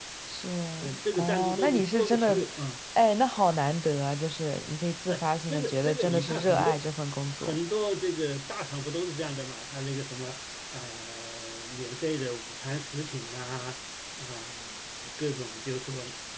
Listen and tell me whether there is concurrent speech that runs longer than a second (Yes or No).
Yes